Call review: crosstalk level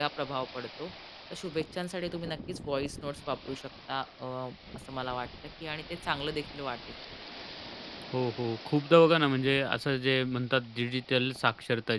none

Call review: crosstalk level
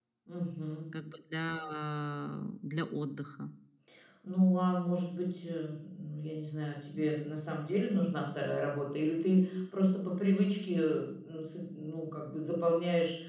none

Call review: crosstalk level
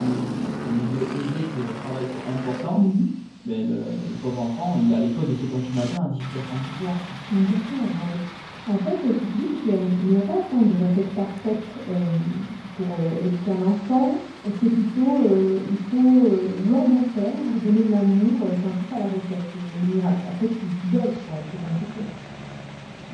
none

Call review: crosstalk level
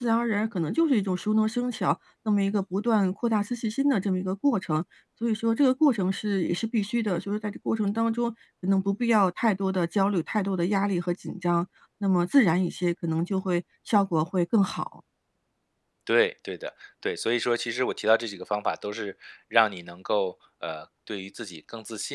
none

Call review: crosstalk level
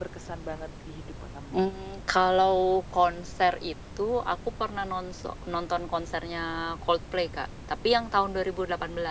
none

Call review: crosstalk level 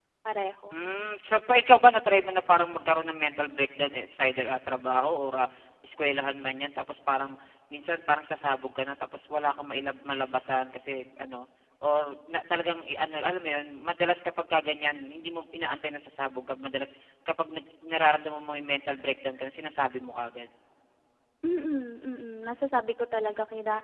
none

